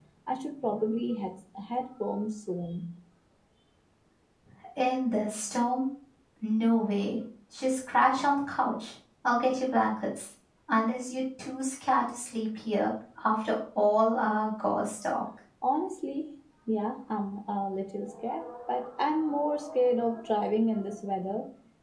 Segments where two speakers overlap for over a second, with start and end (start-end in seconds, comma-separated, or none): none